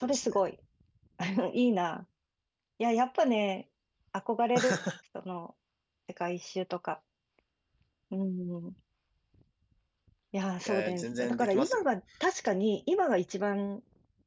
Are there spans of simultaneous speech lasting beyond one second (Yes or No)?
Yes